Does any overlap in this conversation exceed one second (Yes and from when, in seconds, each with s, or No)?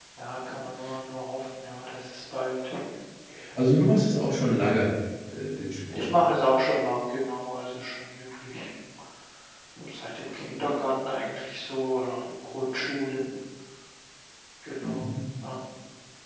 No